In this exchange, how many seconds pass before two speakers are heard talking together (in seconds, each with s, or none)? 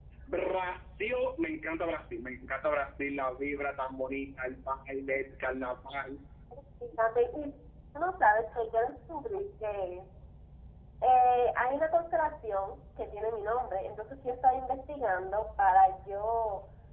none